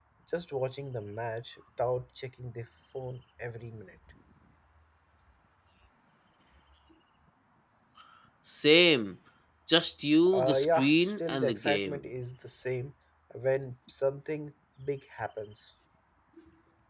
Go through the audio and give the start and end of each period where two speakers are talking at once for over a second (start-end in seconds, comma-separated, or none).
10.3-12.1